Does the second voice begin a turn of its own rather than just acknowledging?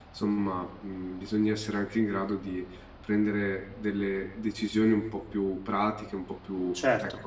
Yes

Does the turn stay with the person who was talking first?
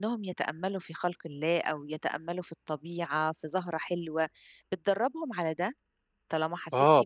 No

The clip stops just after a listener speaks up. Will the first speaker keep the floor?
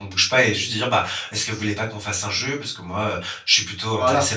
Yes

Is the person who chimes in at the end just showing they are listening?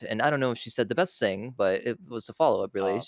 Yes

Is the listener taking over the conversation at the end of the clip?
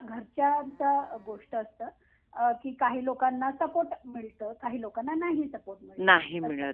Yes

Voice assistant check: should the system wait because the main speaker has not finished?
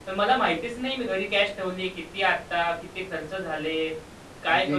No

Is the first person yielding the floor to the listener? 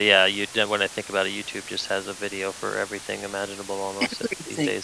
Yes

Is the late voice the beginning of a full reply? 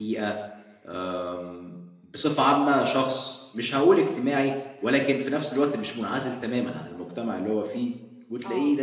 No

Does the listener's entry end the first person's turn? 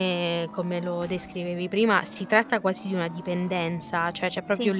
No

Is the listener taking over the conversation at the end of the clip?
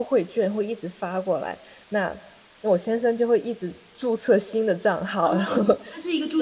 Yes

